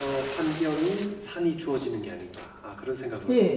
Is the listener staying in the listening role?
No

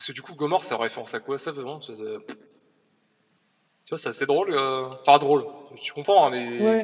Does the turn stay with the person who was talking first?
Yes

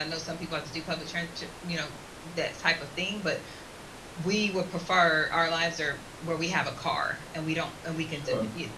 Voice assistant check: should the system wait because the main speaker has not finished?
No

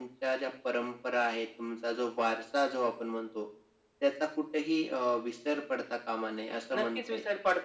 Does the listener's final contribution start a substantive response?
Yes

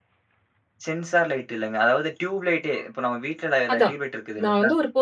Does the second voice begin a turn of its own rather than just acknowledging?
Yes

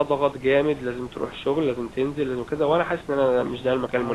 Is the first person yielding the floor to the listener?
Yes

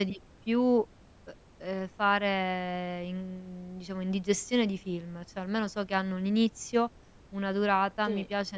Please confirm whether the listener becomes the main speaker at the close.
No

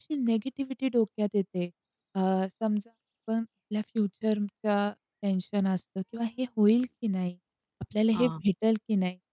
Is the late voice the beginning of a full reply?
No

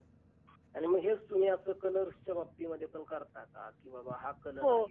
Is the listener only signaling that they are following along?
No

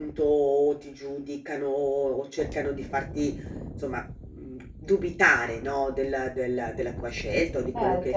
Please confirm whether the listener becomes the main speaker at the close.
Yes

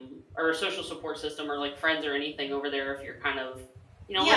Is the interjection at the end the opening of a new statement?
Yes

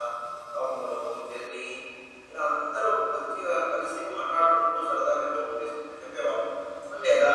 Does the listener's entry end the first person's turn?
Yes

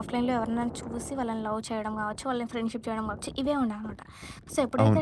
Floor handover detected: No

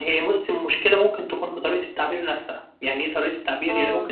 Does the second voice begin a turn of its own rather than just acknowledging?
No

